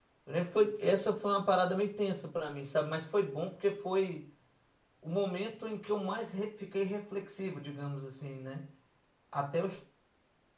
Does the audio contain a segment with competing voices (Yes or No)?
No